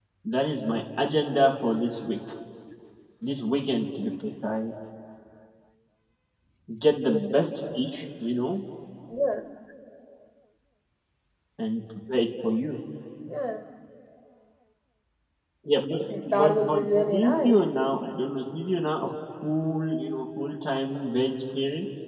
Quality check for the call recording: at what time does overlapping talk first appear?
16.3 s

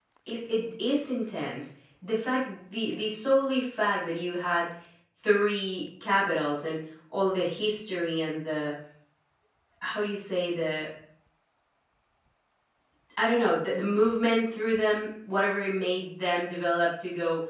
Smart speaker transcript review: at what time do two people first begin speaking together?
none

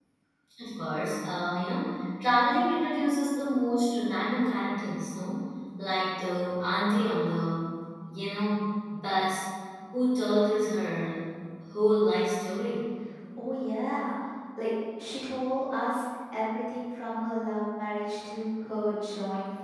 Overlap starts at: none

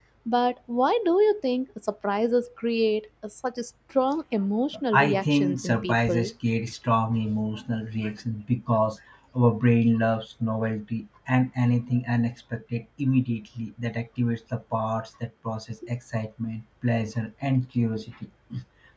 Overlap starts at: 4.9 s

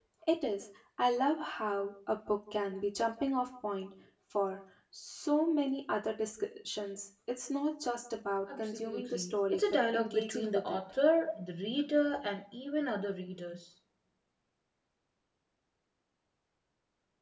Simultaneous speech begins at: 8.5 s

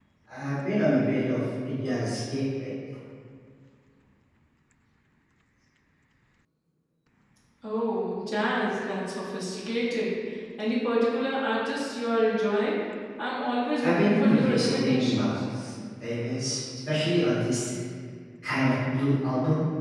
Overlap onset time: 13.8 s

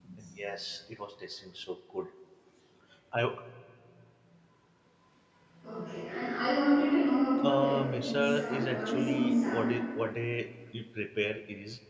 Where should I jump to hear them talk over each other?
7.4 s

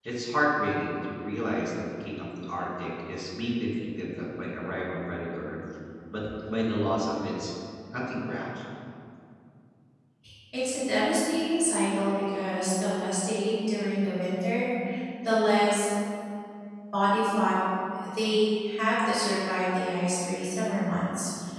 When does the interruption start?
none

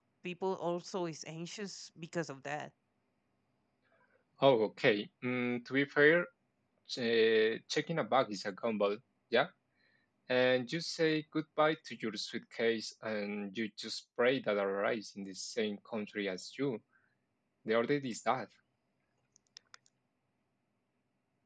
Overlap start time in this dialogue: none

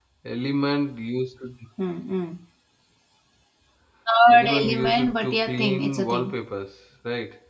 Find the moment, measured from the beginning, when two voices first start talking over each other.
4.3 s

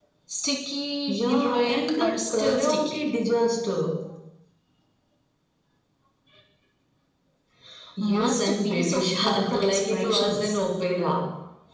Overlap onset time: 1.1 s

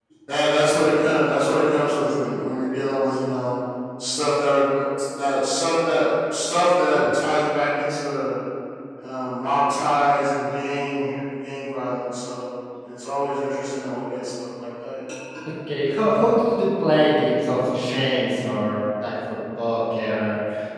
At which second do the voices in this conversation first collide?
none

